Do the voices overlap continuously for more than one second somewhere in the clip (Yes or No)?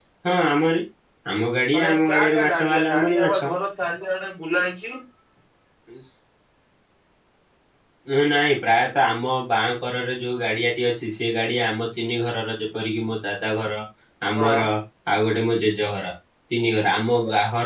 Yes